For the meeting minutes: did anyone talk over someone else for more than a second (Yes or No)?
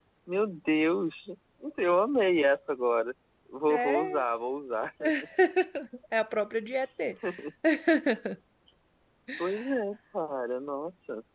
No